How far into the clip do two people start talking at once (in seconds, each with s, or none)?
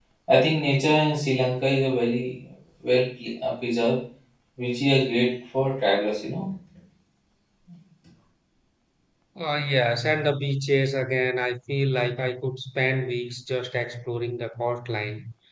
none